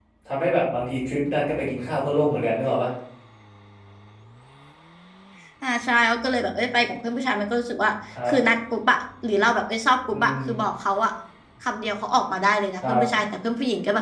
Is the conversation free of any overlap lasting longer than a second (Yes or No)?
Yes